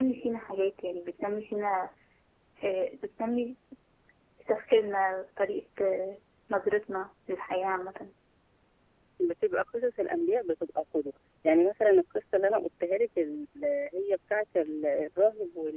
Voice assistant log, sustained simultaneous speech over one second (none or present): none